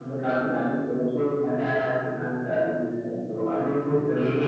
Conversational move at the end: taking over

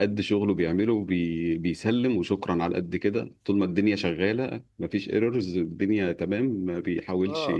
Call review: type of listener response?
taking over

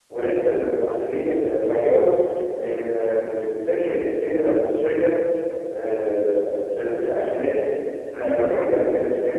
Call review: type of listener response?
listening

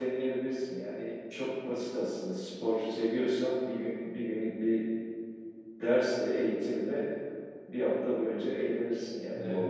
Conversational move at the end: taking over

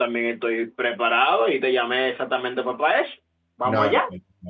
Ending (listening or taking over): taking over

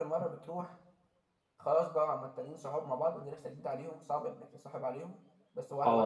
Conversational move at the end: taking over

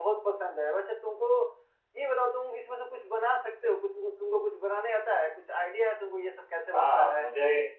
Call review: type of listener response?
taking over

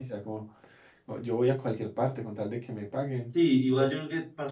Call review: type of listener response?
taking over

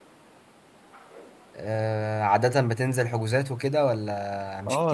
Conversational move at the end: taking over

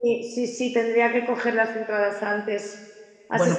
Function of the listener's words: listening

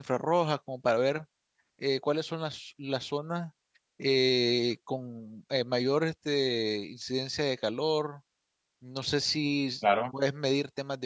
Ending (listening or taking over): listening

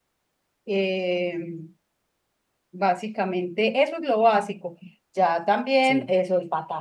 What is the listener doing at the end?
listening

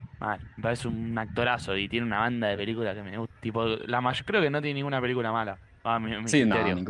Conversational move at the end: taking over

